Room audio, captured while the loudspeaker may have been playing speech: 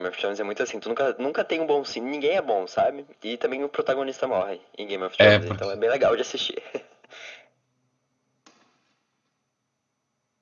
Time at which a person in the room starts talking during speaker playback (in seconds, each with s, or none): 5.2 s